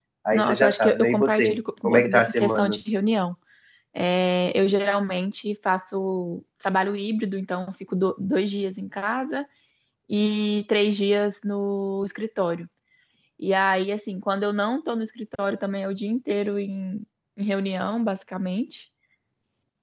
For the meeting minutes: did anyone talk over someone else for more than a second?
Yes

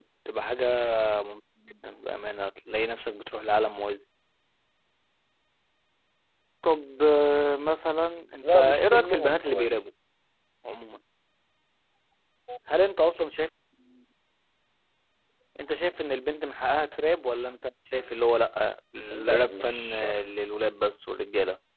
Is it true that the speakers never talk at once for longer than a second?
No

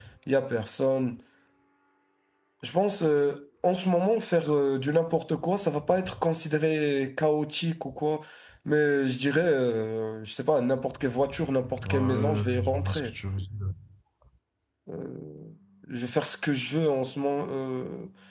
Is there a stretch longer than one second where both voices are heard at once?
Yes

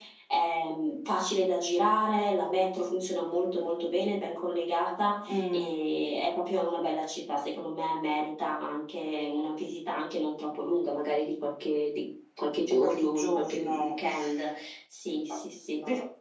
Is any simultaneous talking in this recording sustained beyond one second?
Yes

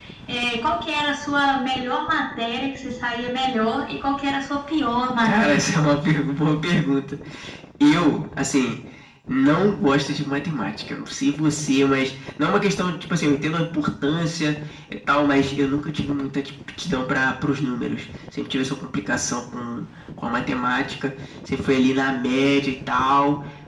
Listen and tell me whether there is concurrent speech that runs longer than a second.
No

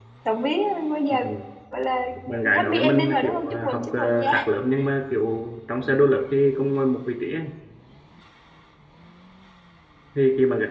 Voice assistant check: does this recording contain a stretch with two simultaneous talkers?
Yes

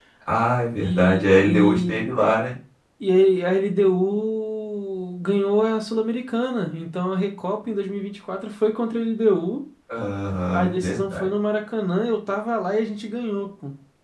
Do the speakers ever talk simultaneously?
Yes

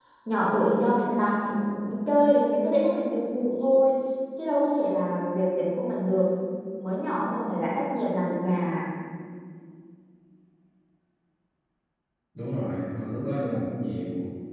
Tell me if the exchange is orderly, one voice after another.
Yes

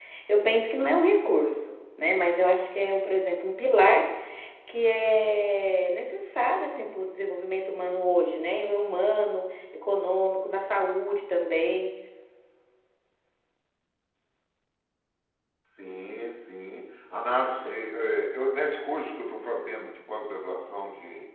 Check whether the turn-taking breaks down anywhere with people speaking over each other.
No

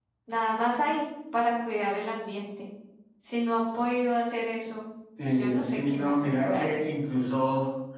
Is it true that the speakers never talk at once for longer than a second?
No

